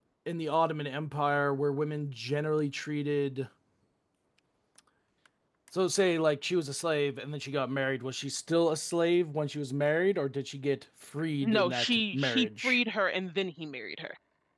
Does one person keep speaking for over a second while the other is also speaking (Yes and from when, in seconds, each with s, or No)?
Yes, from 11.4 s